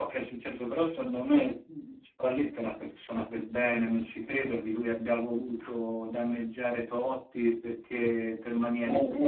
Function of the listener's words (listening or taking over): taking over